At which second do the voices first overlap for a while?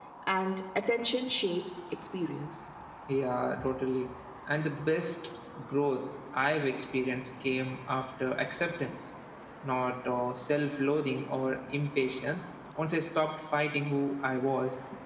none

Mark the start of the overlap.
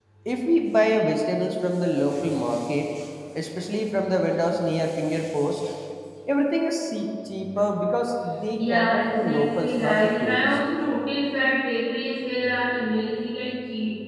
8.6 s

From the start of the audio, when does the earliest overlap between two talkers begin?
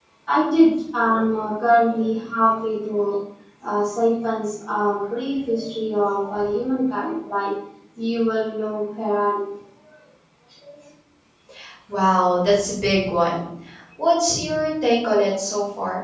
none

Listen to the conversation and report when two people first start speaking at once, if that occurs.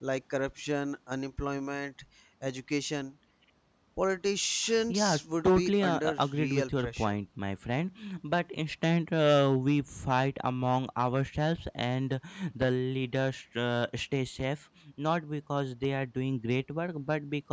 4.9 s

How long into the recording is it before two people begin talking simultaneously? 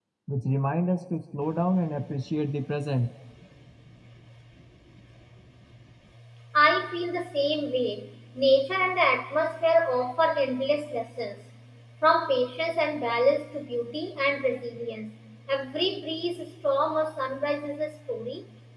none

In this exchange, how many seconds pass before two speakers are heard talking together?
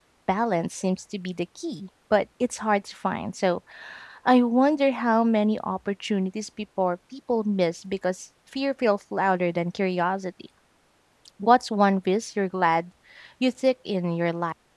none

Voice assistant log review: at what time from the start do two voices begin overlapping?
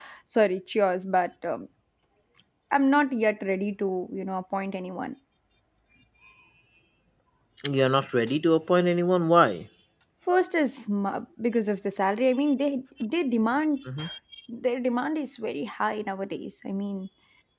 none

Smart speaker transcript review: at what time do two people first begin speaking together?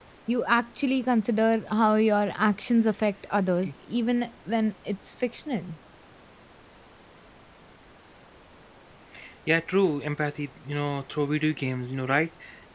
none

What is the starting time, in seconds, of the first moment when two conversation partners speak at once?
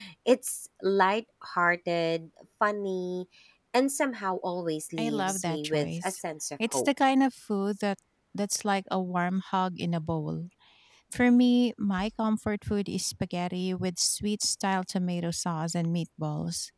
5.0 s

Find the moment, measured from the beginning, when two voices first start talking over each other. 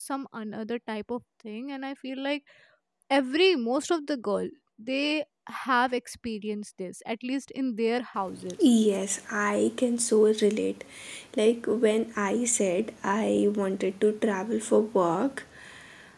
none

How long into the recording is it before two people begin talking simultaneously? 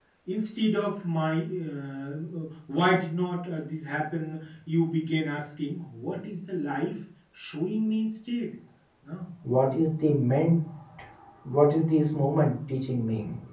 none

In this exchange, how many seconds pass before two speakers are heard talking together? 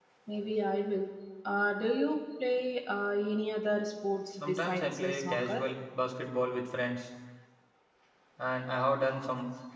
4.4 s

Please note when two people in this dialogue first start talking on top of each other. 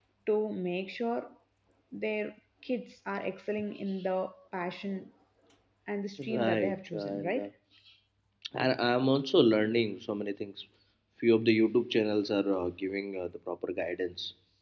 6.2 s

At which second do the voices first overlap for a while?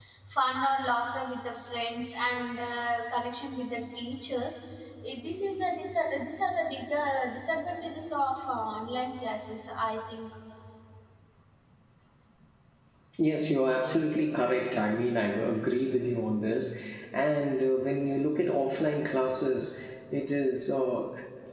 none

